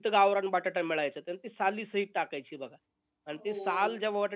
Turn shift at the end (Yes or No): No